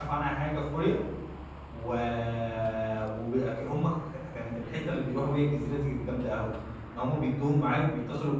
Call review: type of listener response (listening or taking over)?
listening